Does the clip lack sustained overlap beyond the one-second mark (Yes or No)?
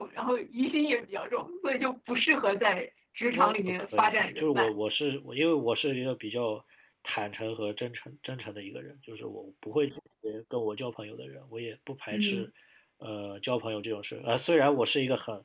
No